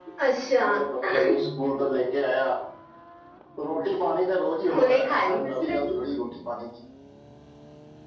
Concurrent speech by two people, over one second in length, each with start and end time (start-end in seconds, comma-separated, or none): 4.7-5.9